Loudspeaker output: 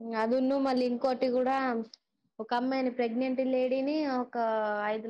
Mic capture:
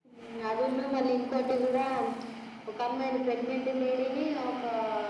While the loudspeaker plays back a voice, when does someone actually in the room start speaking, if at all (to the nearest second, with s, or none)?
none